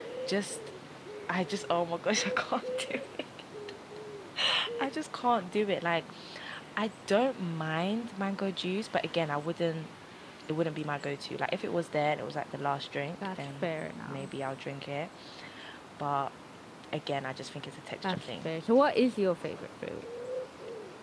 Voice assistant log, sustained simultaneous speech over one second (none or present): none